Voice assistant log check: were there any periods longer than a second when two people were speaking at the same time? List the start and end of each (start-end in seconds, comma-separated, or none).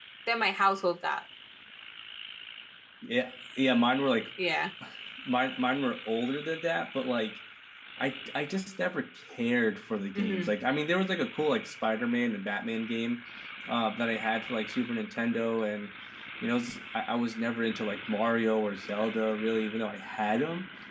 none